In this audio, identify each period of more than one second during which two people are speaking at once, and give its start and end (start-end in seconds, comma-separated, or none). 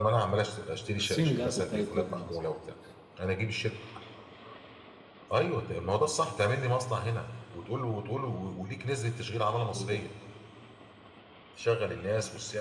1.0-2.5